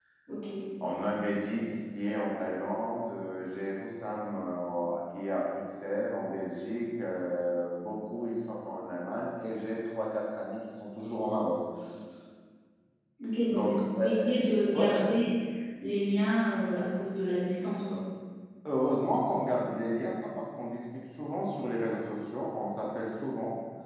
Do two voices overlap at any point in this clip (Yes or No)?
Yes